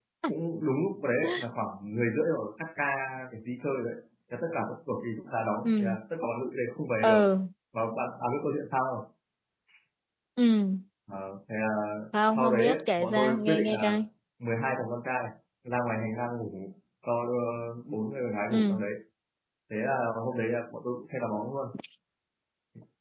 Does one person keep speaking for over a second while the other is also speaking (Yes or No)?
Yes